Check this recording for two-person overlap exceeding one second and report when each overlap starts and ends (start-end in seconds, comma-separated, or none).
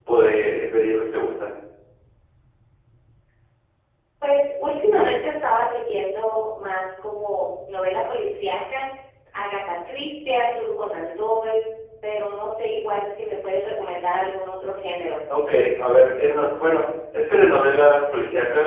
none